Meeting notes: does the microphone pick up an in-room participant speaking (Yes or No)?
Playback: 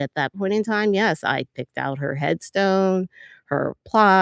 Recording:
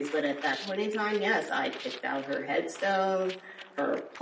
No